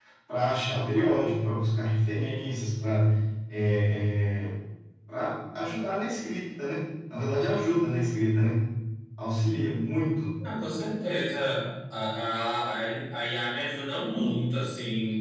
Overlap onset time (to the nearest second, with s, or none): none